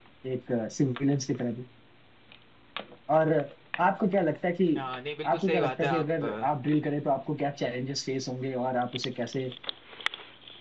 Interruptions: present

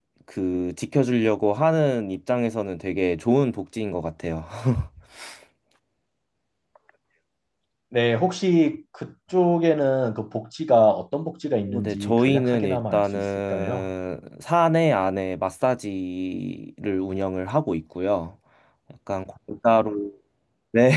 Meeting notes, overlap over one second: present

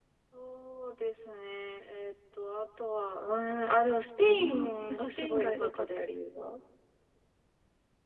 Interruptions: present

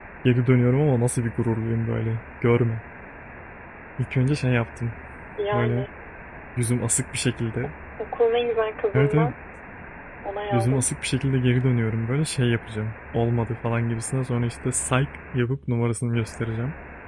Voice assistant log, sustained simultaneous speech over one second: none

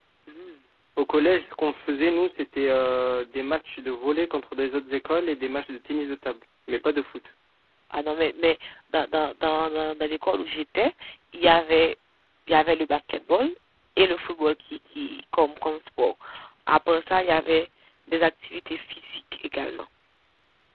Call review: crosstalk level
none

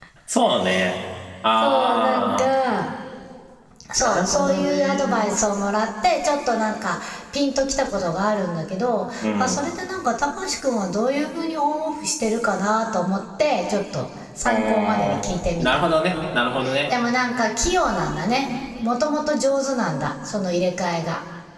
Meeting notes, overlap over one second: present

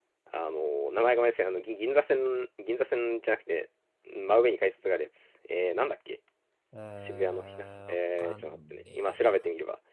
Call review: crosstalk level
present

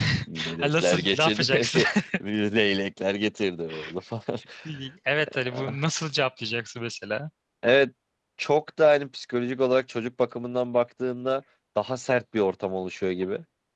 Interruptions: present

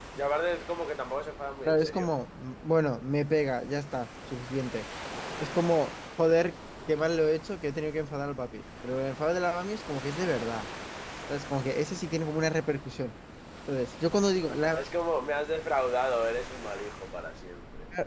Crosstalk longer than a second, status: none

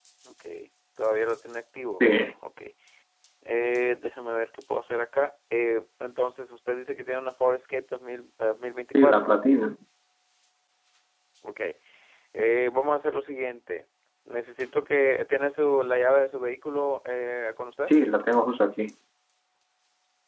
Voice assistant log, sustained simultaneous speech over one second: none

